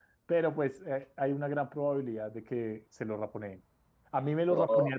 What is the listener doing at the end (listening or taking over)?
listening